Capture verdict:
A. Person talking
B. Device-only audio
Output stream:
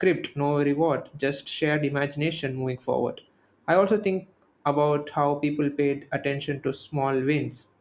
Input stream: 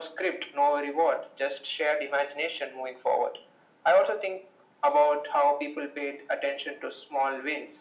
B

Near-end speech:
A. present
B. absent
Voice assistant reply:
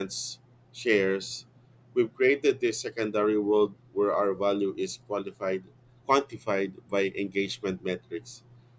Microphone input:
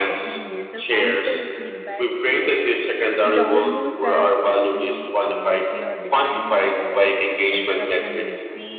A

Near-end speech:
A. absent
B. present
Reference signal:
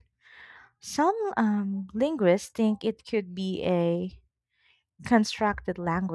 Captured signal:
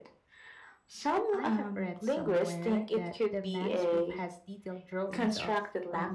B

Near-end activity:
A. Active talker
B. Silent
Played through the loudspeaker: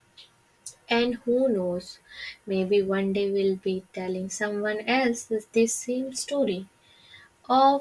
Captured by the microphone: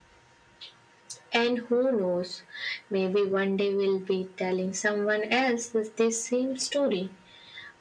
B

